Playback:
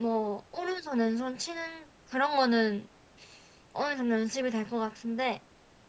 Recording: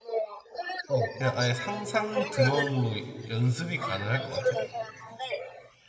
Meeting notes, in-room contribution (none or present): present